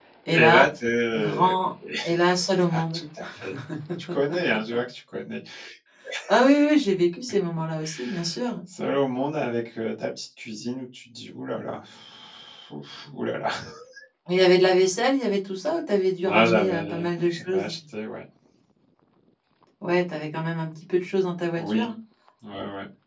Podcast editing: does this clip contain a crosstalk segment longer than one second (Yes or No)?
Yes